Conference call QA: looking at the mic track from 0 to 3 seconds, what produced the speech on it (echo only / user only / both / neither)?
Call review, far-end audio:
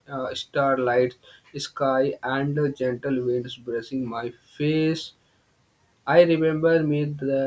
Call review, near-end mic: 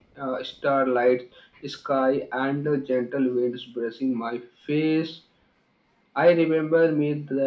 echo only